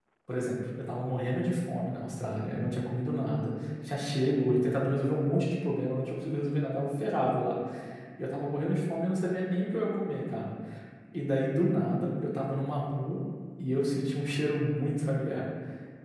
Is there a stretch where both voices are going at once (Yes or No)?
No